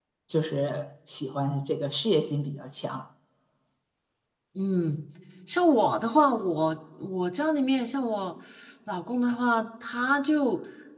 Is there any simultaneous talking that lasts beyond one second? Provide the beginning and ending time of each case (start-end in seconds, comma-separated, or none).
none